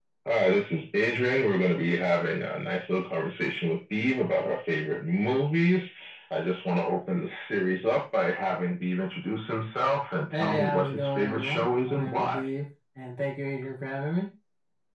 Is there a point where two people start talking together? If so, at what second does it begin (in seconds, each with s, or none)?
10.3 s